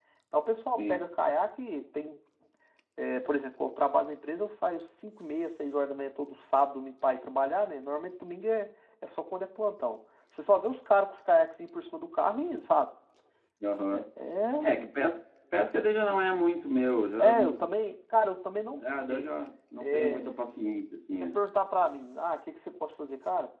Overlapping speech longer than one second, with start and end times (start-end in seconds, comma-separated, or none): none